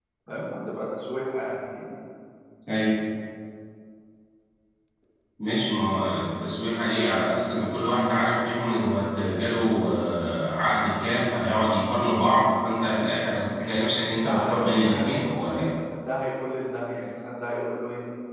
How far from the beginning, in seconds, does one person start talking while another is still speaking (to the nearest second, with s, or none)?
14 s